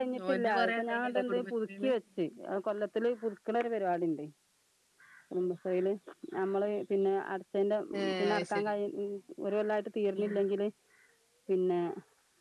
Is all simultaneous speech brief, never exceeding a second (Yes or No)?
No